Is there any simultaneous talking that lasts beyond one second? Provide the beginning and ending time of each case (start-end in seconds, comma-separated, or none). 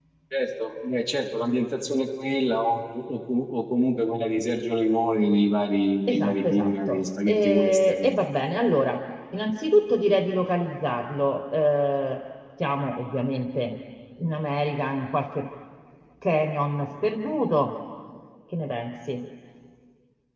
6.1-8.1